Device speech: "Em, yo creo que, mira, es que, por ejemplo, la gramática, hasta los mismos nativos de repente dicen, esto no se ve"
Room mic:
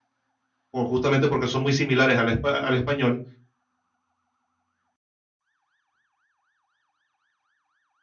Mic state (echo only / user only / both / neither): user only